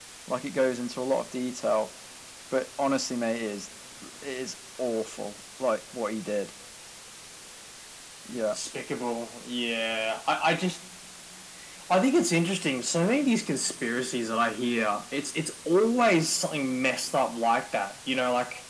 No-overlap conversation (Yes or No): Yes